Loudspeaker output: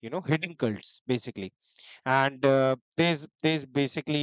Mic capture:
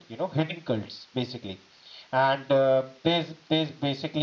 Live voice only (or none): none